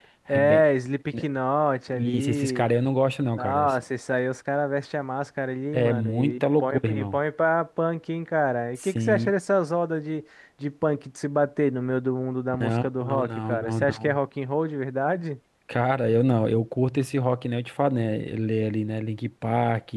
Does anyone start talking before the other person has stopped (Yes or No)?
Yes